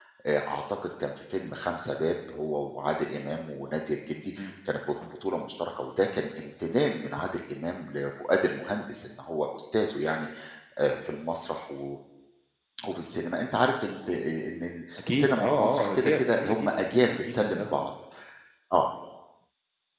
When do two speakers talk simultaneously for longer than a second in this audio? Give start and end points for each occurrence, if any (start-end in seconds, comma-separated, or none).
15.0-17.9